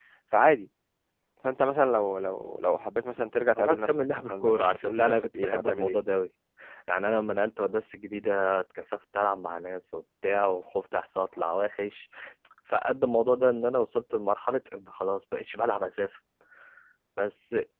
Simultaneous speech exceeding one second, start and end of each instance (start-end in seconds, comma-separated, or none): 3.6-6.0